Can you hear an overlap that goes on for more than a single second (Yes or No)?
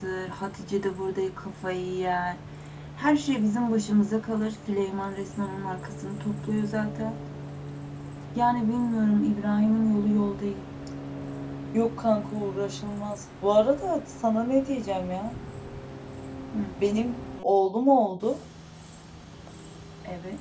No